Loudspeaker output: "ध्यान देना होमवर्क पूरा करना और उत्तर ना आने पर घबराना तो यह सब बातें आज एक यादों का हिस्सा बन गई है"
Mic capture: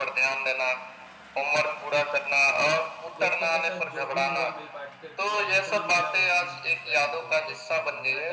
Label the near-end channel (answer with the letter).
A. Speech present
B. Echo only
A